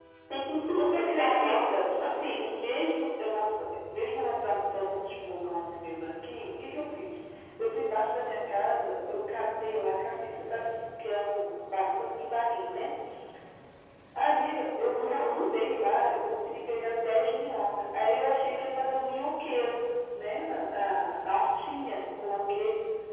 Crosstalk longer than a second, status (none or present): present